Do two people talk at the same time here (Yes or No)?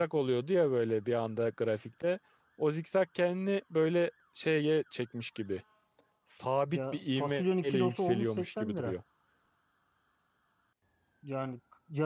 Yes